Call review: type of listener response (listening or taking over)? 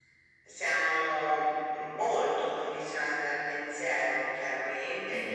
listening